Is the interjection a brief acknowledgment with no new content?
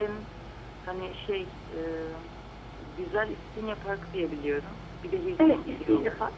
No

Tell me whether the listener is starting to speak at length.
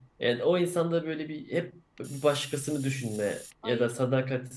No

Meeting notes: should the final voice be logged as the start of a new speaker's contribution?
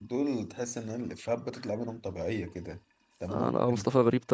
Yes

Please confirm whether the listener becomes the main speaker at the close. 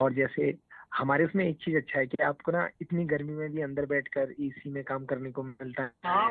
Yes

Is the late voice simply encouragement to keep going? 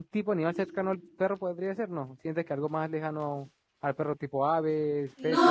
No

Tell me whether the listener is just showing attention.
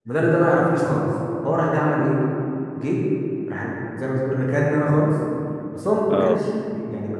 Yes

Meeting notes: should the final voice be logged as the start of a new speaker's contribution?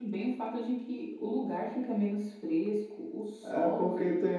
Yes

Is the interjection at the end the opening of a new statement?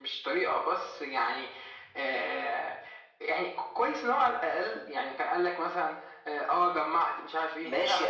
Yes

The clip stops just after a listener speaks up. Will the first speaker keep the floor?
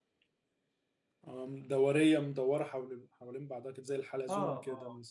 No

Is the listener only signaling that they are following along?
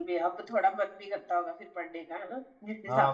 No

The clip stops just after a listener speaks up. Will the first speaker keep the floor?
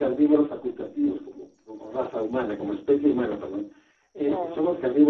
Yes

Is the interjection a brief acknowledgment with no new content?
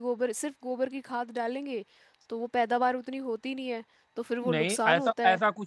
No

